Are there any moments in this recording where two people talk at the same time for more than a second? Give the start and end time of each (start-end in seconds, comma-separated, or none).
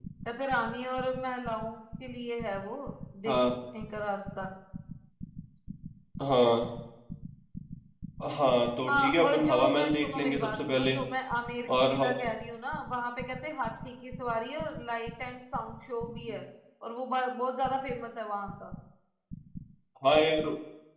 8.9-10.9